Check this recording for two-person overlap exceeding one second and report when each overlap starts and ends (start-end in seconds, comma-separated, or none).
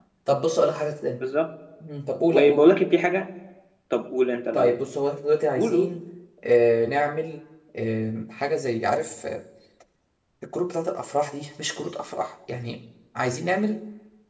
none